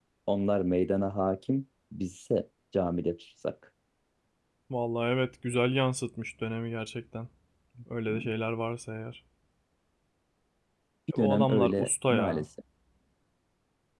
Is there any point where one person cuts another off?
Yes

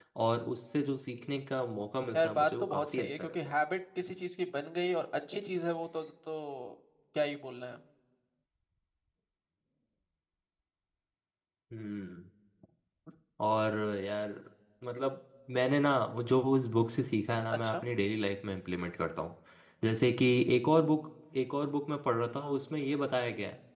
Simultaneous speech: Yes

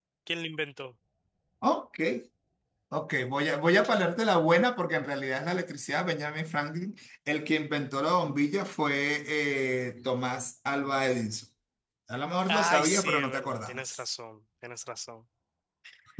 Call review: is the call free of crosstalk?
No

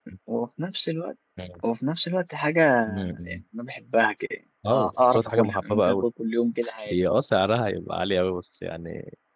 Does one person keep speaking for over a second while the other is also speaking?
Yes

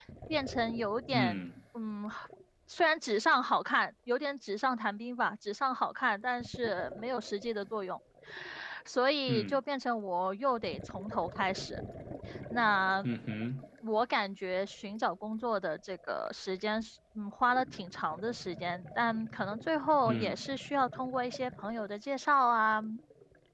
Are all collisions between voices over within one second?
Yes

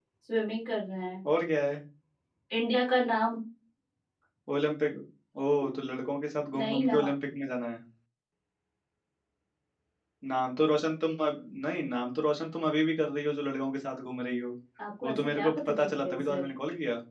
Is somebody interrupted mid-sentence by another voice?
Yes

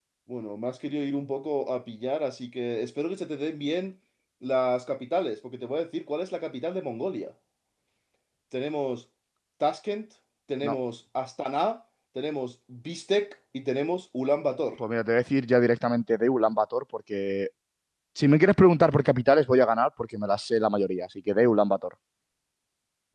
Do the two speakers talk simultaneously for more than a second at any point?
No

